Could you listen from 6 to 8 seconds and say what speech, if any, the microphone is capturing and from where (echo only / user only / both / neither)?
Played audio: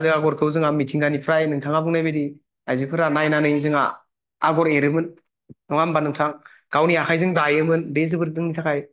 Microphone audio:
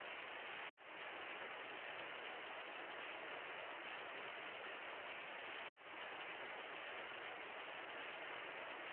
neither